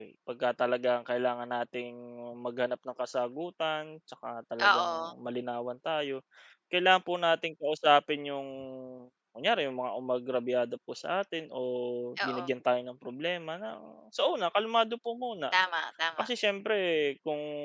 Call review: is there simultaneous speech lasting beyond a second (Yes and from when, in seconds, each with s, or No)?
No